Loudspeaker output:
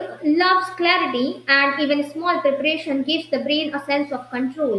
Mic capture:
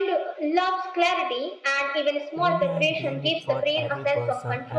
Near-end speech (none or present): present